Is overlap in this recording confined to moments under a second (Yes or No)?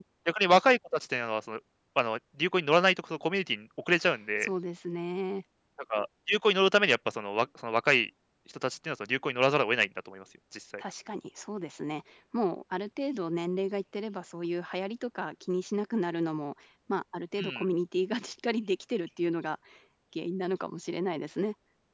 Yes